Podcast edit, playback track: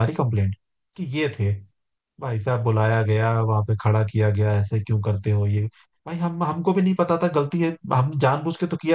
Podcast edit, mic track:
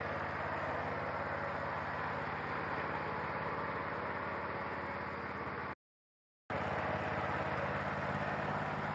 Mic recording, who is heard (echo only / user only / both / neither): neither